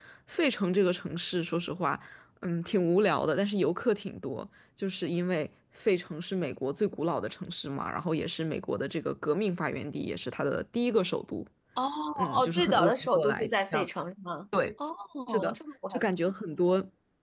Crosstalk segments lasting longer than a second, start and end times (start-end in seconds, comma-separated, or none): 12.3-13.9